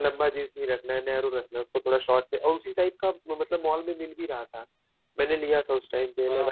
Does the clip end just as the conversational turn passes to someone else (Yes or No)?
Yes